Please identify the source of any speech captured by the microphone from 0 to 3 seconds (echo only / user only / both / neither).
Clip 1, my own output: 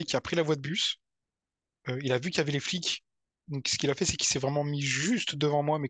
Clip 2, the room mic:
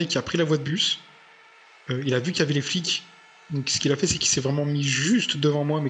echo only